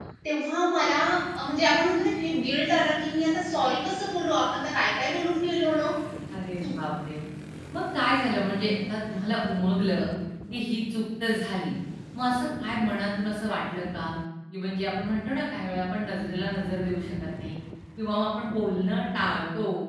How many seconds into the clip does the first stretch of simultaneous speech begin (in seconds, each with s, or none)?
none